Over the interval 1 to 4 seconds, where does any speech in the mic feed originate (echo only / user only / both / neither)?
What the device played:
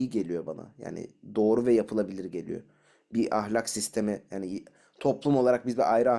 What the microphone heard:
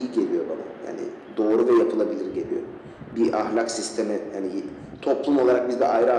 echo only